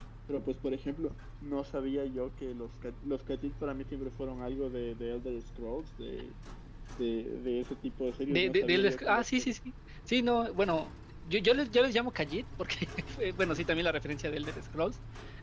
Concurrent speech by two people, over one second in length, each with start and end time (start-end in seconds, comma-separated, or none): 8.3-9.5